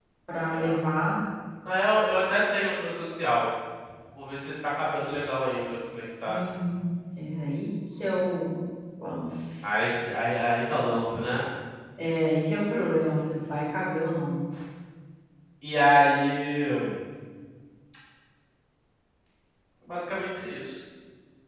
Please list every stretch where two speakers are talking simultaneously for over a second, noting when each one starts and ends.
none

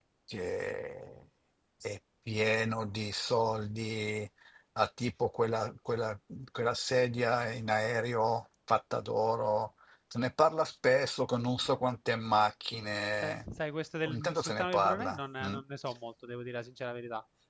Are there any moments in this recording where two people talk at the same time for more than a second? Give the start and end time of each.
14.1-15.6

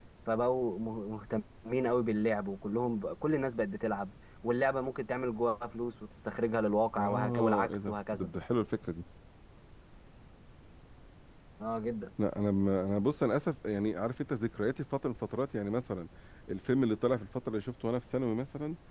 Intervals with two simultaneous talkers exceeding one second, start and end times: 7.0-8.3

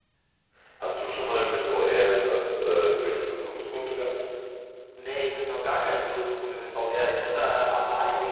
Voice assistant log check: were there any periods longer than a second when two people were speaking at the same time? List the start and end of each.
none

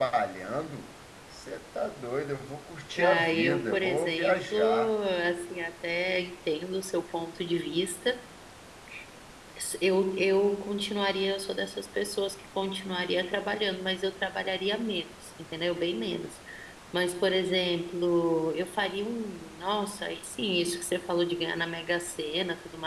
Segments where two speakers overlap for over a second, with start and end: 3.0-4.9

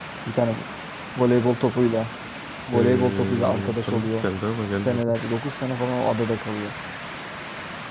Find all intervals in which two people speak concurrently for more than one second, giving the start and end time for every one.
2.7-4.2

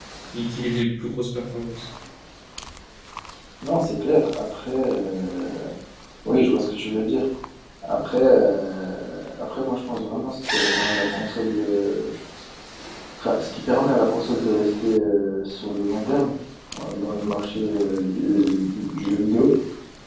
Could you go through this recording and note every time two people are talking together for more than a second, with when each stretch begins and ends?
none

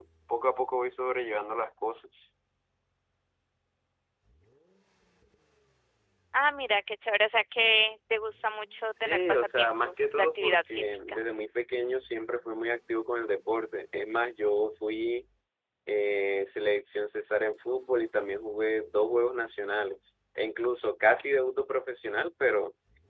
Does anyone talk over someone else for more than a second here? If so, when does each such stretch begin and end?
9.0-11.2

